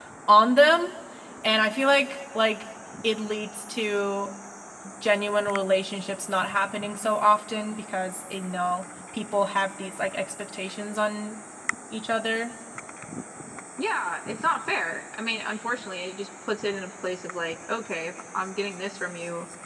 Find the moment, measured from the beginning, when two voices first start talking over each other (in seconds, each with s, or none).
none